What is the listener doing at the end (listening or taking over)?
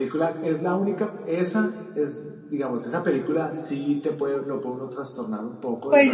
taking over